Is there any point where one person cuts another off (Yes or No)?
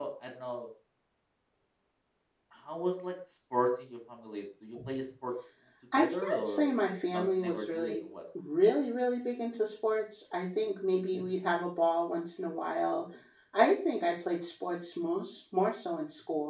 Yes